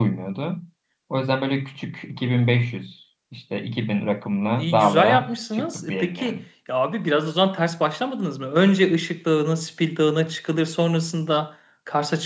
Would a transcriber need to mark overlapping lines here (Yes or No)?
Yes